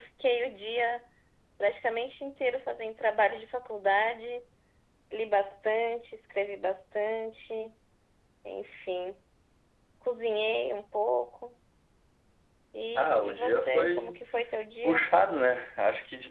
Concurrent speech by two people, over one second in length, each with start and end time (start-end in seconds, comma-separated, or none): 12.9-14.2